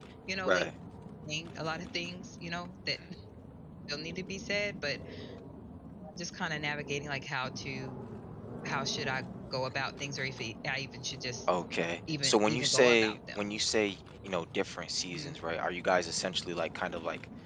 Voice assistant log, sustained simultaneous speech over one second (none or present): present